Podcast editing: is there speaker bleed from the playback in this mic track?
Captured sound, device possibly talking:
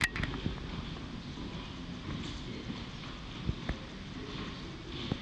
No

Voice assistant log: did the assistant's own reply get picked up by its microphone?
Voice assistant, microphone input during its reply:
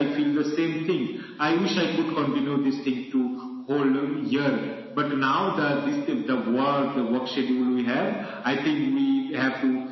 Yes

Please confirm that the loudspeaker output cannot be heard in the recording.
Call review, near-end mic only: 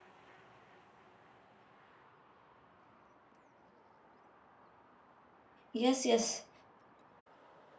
Yes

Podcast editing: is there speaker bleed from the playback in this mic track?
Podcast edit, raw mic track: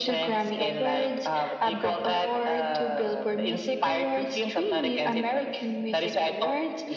Yes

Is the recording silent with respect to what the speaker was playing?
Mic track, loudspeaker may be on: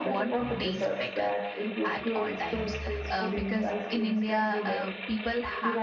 No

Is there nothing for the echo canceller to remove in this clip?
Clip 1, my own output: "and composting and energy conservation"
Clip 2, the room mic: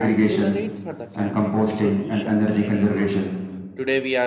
No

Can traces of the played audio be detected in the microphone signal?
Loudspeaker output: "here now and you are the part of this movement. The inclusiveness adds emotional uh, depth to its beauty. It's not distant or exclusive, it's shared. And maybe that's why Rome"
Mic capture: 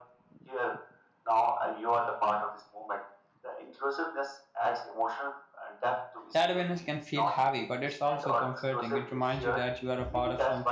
Yes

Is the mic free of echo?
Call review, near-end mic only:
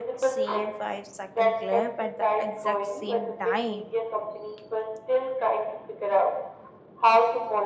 No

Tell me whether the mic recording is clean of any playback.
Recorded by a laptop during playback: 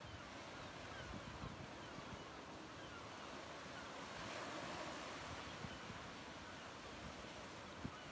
Yes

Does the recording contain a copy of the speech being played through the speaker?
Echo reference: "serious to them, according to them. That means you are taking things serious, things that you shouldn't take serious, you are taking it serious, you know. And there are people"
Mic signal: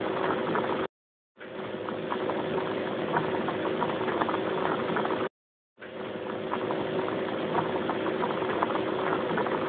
No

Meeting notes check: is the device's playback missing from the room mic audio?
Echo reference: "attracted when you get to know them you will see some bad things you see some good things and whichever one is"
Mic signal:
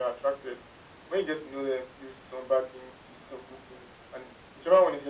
No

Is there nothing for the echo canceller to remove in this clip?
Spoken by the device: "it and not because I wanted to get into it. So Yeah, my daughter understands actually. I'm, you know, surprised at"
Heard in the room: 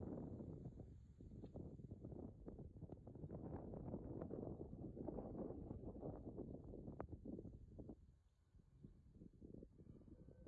Yes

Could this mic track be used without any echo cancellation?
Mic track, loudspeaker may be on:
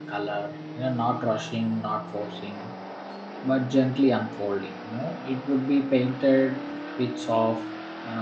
Yes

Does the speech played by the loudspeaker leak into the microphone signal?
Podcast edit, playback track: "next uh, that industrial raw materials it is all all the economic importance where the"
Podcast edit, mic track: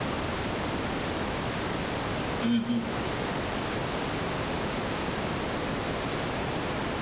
No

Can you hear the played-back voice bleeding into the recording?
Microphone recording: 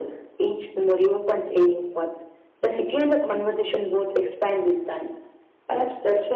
Yes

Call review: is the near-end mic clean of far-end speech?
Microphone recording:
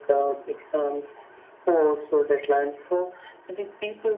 No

